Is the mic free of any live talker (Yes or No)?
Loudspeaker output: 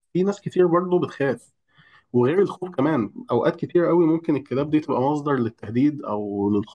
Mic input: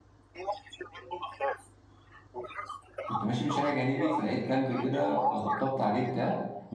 No